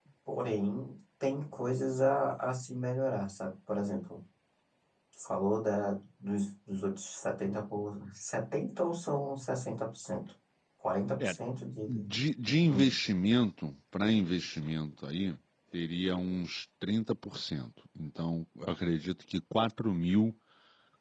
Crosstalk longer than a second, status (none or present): none